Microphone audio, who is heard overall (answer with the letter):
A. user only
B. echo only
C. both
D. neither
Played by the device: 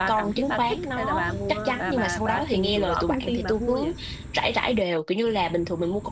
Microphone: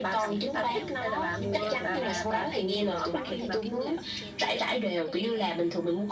C